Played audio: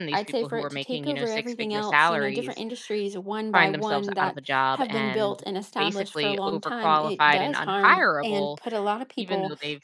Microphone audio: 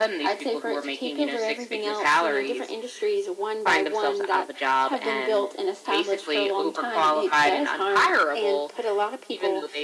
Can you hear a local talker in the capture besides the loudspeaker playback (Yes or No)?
No